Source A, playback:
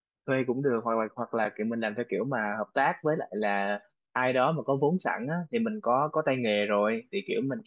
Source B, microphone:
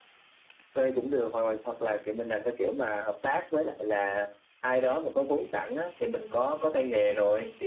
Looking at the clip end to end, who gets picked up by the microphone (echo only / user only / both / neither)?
echo only